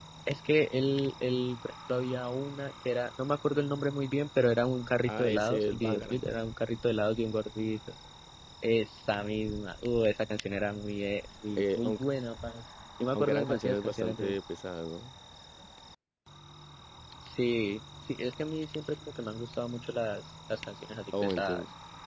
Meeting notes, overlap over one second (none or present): present